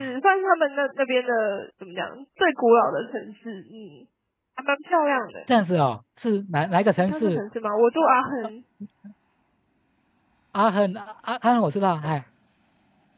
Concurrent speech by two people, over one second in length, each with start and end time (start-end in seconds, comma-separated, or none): none